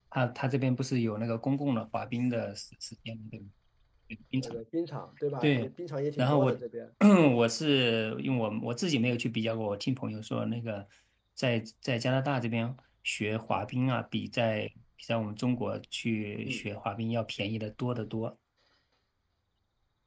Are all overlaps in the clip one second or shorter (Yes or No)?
Yes